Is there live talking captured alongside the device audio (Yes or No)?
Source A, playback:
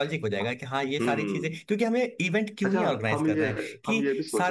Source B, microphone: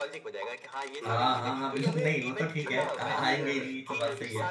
Yes